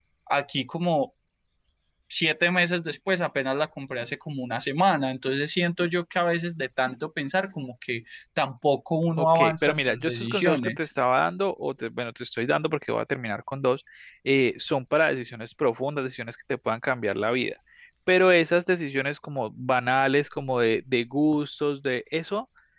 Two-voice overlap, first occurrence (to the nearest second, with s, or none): 9 s